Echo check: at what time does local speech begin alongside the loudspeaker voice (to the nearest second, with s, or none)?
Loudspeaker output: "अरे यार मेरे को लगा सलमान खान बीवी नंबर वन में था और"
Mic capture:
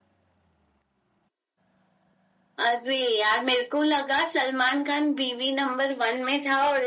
none